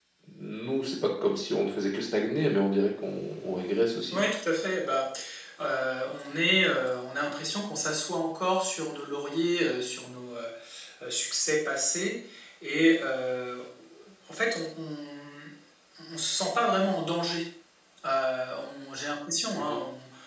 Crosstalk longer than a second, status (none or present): none